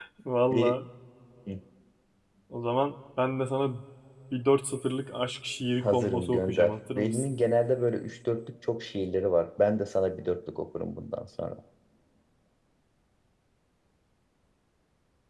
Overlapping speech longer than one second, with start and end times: 5.8-7.3

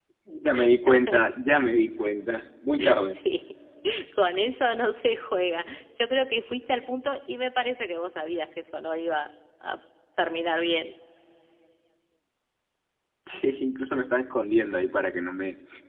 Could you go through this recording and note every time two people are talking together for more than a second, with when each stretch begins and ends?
none

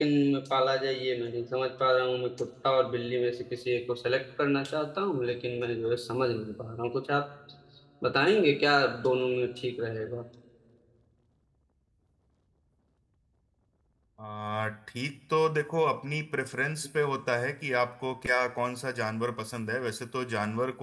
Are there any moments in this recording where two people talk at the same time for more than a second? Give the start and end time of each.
none

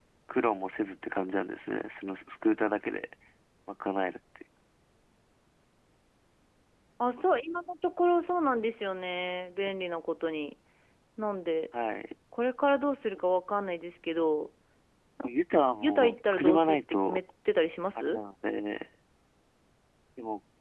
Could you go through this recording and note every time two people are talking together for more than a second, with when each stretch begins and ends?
15.8-17.2

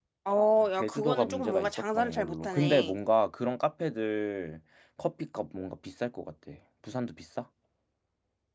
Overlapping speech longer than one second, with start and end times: 0.8-2.9

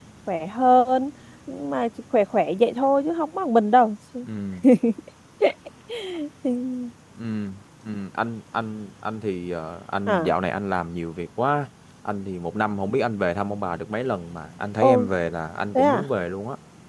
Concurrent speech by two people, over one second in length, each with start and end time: none

